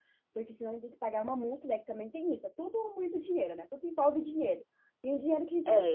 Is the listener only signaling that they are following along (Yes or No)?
No